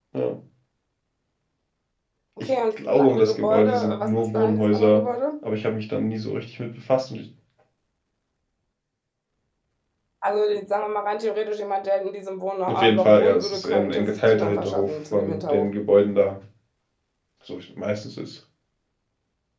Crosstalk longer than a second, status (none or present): present